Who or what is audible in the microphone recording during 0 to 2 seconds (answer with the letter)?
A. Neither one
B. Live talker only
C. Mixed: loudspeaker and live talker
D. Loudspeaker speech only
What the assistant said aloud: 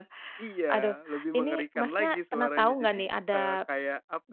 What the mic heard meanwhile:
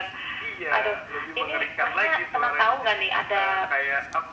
D